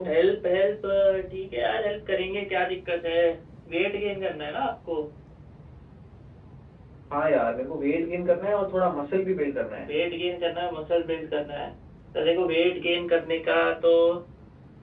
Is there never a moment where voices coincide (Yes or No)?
Yes